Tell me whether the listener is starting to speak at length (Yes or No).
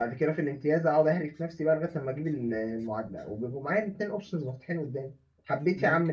No